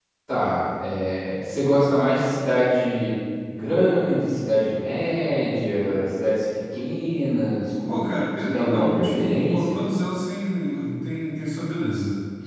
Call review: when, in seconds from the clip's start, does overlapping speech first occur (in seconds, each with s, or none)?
7.9 s